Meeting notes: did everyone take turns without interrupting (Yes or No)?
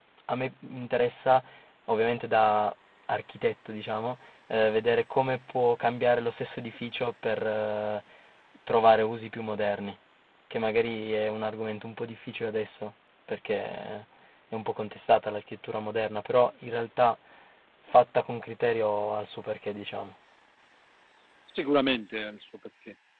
Yes